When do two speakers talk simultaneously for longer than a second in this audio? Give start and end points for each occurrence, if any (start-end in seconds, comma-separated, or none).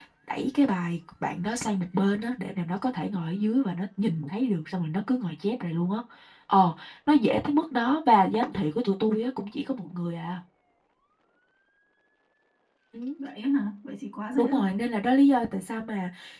none